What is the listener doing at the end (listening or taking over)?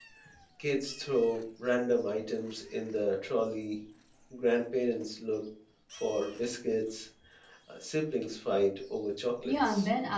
taking over